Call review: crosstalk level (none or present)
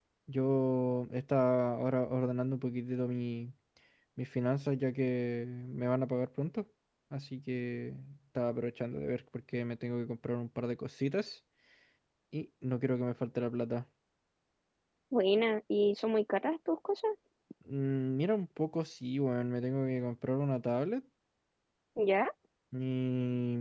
none